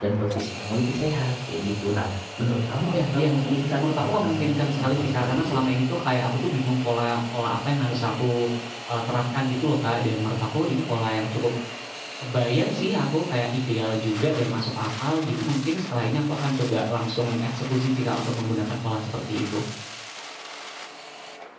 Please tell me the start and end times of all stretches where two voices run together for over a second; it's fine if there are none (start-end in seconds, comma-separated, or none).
2.9-5.6